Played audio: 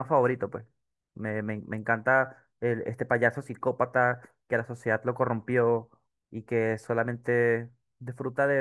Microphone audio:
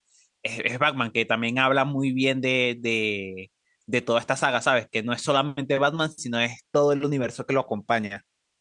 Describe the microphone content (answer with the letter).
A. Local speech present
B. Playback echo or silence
A